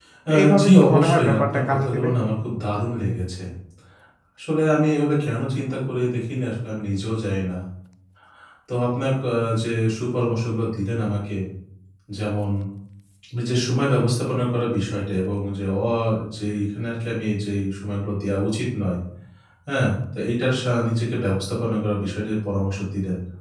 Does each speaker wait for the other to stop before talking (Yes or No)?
No